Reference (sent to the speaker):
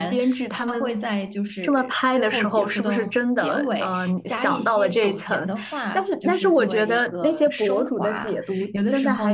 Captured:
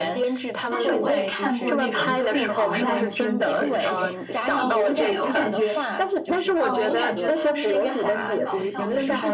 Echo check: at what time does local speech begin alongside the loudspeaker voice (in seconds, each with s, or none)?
0.7 s